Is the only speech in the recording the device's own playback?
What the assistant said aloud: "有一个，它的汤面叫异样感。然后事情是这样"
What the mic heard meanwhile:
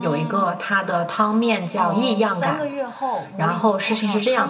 No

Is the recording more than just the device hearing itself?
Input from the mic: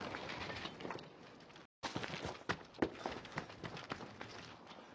No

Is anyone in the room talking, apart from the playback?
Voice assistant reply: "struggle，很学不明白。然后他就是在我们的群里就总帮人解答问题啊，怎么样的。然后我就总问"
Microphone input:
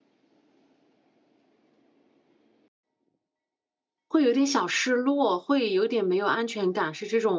Yes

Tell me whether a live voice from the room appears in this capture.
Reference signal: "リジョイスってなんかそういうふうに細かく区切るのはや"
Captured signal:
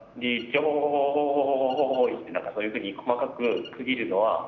No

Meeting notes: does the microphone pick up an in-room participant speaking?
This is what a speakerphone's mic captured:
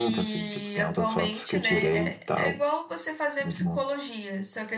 Yes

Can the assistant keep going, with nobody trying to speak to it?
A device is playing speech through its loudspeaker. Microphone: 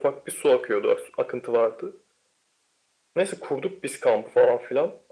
Yes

